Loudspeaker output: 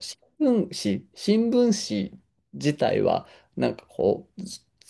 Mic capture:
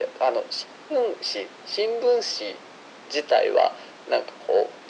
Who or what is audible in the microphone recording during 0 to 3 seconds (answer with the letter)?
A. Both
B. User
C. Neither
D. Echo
D